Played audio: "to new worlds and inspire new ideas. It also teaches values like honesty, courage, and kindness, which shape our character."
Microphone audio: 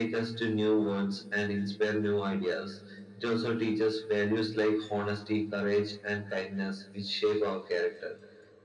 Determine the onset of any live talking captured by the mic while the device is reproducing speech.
none

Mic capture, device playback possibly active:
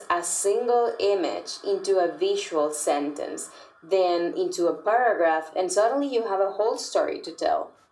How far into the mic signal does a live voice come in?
none

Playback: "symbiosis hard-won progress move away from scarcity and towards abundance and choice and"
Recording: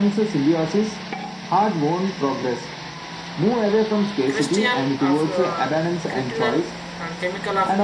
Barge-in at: 4.3 s

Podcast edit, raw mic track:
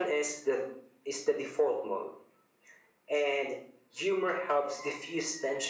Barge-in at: none

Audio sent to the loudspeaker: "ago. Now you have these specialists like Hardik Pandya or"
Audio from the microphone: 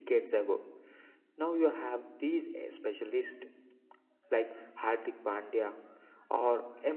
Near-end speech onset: none

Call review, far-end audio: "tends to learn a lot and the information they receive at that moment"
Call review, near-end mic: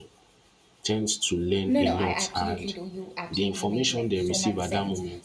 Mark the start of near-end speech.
1.7 s

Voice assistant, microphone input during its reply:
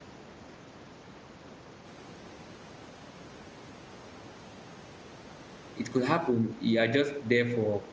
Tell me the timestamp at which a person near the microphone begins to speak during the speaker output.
5.8 s

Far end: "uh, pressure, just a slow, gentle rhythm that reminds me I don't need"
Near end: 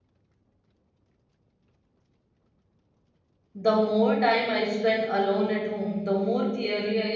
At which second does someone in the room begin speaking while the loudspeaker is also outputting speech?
3.5 s

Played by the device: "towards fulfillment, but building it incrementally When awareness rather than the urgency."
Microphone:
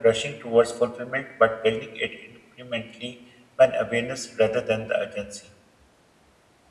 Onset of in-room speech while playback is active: none

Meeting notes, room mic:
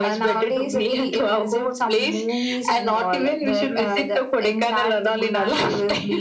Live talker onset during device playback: none

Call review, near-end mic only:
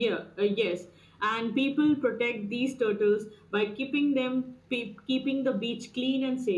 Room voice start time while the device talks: none

